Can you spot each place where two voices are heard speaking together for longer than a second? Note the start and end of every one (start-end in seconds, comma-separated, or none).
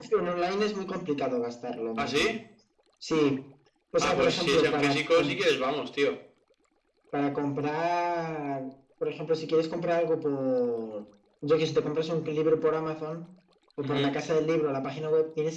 4.0-5.3